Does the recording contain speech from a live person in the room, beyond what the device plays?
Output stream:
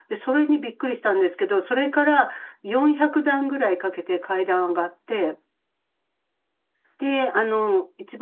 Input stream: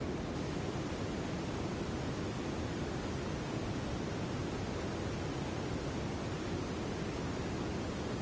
No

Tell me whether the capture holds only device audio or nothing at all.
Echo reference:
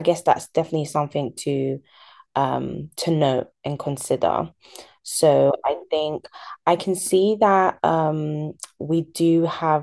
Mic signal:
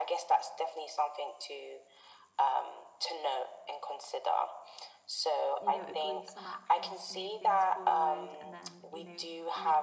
No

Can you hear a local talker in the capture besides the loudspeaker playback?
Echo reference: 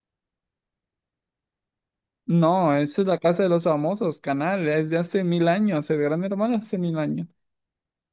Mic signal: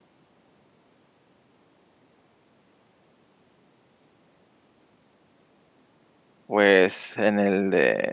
Yes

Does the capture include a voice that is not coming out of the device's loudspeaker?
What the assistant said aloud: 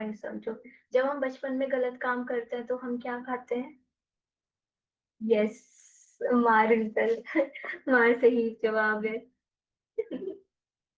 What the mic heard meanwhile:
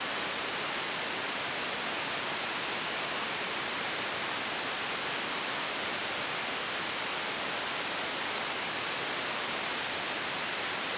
No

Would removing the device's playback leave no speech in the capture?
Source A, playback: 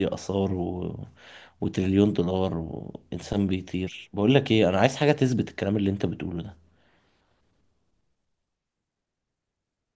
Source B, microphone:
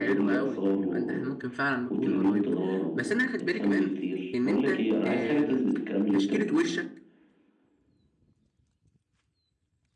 No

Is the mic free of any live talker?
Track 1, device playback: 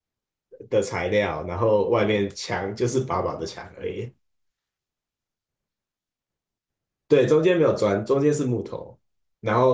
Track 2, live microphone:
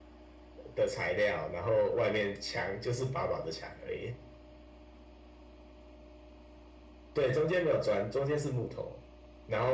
Yes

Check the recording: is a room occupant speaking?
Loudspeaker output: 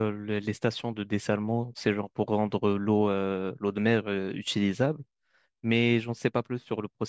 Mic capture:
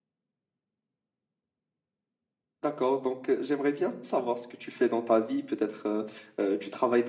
Yes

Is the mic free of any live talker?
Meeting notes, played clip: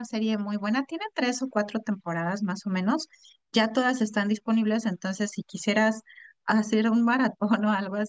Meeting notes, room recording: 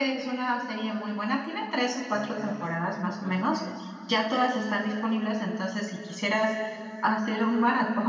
No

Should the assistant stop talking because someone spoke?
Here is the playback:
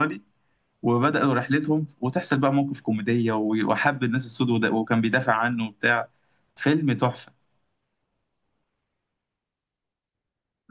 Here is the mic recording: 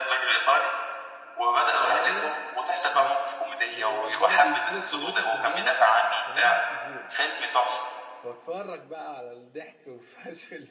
Yes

